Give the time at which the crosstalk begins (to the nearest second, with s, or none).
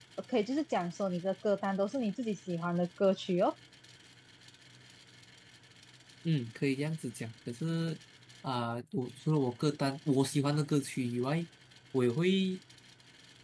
none